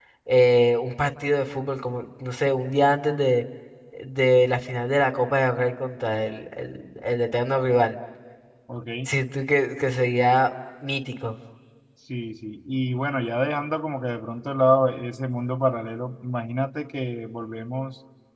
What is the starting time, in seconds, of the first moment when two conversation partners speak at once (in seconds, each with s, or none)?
none